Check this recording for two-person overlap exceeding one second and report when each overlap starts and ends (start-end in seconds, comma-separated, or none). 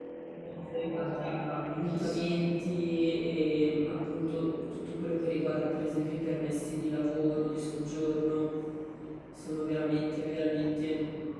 0.8-2.4